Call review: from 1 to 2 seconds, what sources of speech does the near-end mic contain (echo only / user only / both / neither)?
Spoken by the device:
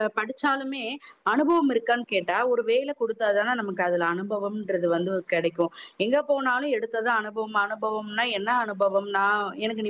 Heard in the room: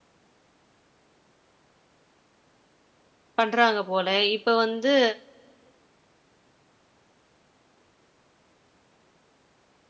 neither